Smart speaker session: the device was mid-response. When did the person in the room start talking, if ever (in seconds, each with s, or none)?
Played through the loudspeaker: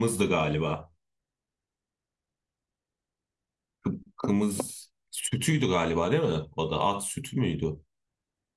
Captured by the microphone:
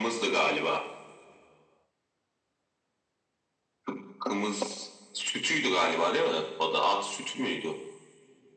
none